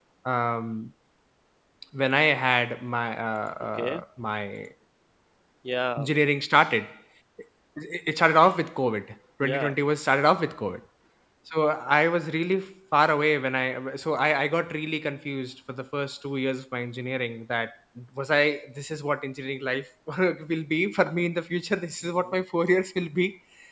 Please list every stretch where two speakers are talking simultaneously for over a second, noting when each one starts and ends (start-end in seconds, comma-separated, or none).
none